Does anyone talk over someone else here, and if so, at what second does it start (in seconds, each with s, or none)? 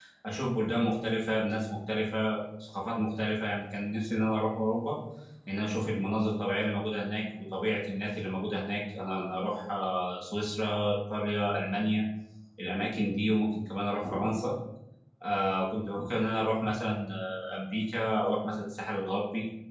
none